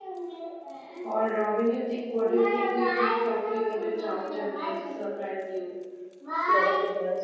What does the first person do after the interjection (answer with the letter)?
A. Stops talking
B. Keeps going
A